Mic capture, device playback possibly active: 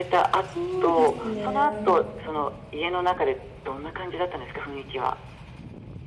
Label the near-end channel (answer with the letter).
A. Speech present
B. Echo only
A